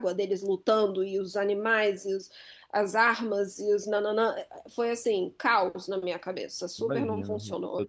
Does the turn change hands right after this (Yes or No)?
Yes